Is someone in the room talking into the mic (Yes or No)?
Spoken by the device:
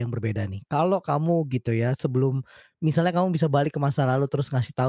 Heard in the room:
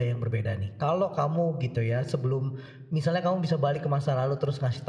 No